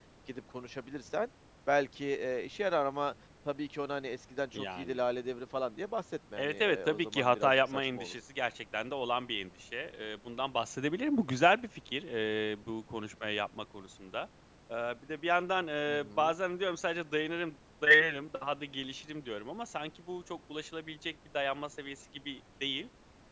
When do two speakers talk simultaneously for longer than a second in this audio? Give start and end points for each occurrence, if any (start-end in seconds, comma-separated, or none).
6.4-8.1